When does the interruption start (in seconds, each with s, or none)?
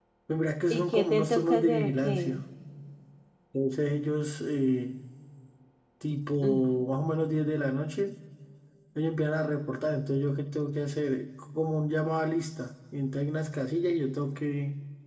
0.7 s